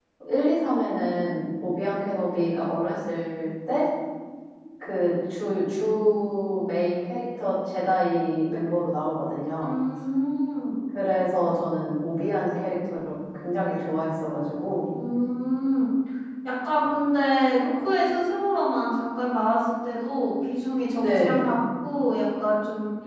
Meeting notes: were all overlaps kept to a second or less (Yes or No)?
Yes